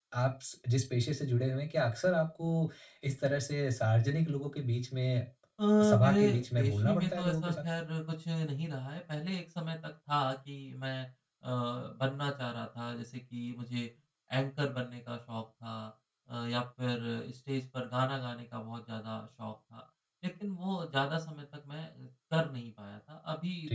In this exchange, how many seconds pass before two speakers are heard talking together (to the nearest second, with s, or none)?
6 s